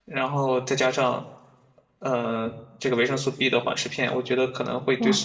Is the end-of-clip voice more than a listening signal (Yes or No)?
Yes